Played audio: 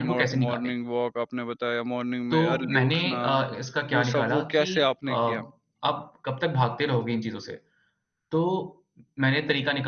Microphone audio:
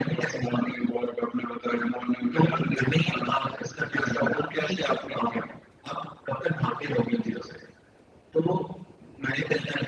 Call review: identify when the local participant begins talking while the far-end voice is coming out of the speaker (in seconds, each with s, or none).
none